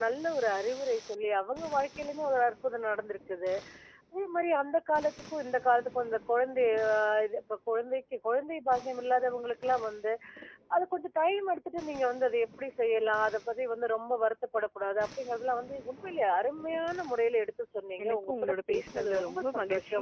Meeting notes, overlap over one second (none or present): present